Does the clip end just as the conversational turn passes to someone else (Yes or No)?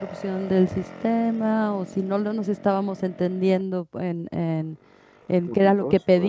No